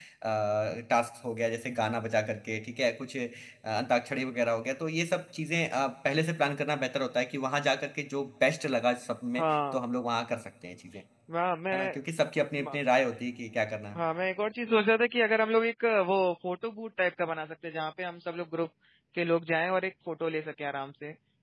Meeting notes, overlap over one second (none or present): none